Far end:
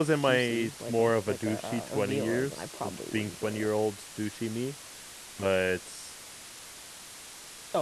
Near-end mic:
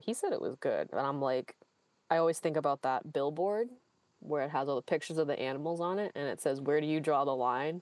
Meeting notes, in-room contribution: present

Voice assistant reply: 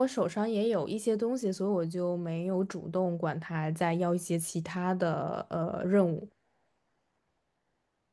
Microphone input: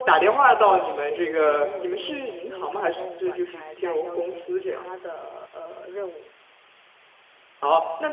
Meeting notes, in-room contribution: present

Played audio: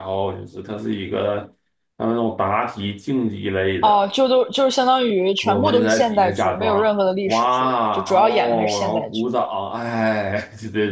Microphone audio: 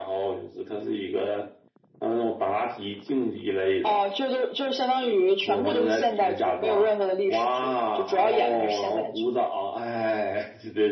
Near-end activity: none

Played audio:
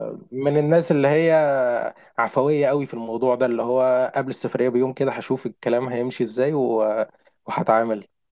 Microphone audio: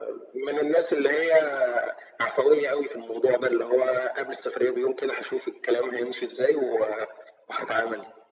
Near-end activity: none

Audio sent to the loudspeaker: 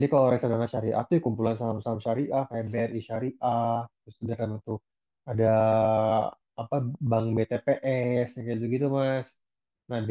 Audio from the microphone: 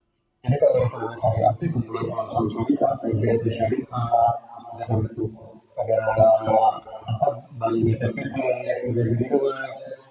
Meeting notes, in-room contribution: none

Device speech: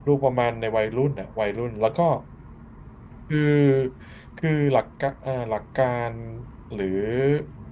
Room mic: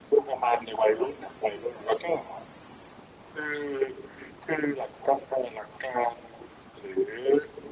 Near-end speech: none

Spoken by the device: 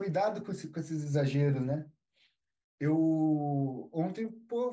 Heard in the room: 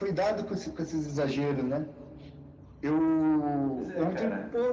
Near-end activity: present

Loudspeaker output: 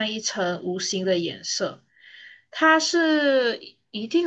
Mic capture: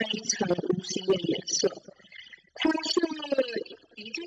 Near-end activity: none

